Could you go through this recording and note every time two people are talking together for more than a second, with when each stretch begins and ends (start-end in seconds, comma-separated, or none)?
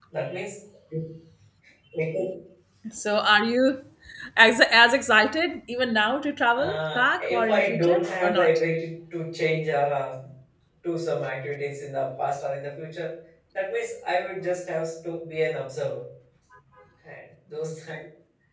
6.5-8.6